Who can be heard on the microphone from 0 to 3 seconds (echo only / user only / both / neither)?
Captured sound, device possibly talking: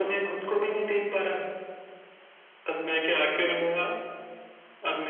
echo only